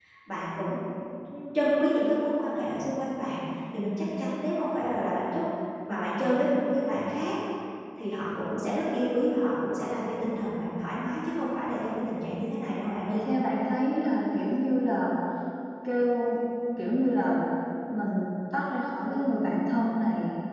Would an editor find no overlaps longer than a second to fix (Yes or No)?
Yes